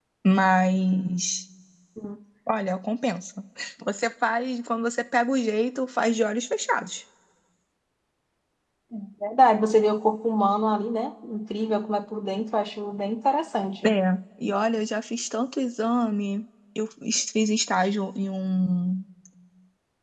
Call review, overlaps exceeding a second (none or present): none